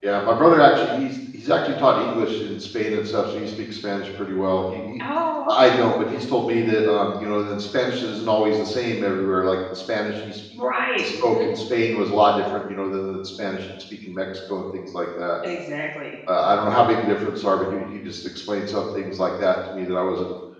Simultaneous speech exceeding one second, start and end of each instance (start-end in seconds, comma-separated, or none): none